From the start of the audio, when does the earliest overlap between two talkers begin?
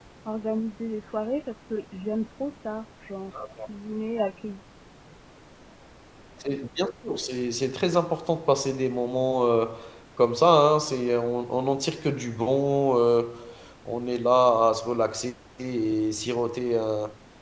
none

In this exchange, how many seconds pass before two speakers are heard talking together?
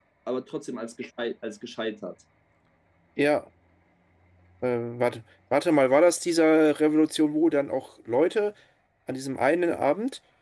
none

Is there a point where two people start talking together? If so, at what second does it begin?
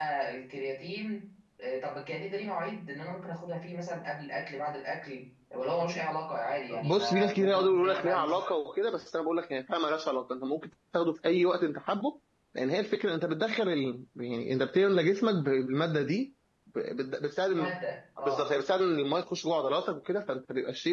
6.8 s

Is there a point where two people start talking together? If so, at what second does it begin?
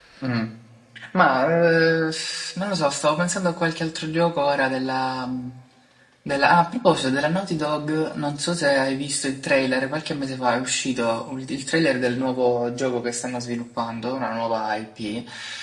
none

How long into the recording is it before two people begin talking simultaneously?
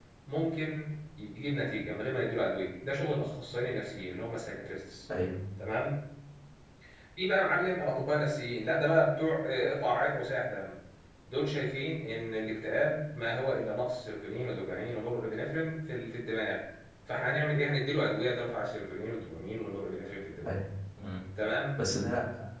none

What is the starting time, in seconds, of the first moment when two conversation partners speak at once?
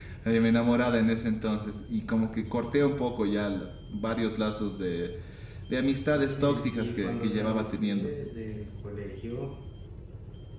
6.1 s

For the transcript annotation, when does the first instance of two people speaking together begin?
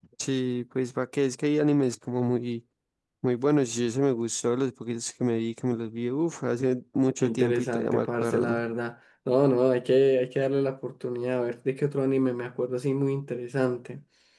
7.2 s

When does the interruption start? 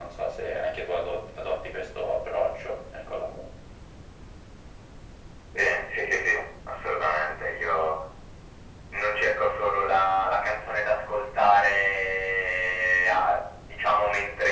none

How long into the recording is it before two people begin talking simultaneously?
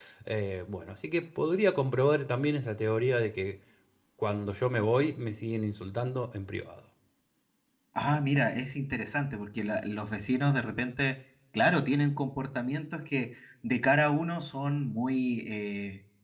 none

